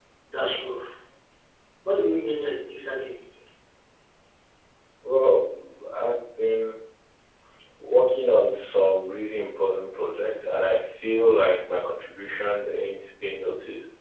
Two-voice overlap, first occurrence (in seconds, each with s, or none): none